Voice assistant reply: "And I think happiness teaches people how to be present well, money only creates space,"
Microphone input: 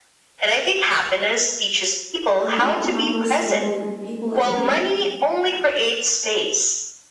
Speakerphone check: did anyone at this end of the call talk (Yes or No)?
Yes